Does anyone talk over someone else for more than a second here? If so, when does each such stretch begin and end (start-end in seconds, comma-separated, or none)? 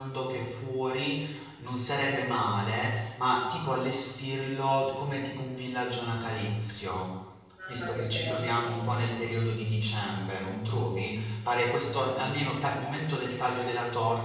7.7-9.0, 11.4-12.8